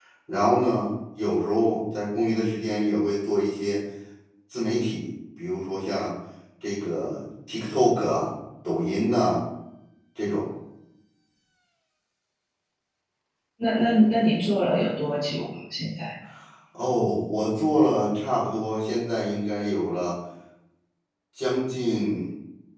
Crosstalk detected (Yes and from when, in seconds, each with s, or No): No